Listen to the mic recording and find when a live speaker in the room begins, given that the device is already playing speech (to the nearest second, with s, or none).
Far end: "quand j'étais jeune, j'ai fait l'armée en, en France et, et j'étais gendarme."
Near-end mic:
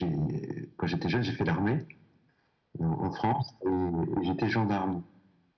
none